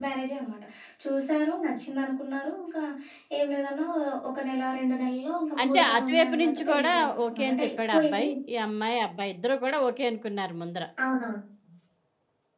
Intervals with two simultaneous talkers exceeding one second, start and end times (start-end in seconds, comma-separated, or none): 5.6-8.2